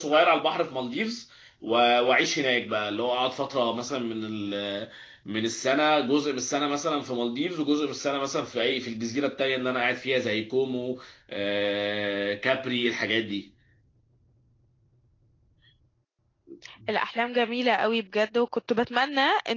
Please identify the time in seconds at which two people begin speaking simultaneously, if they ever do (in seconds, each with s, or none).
none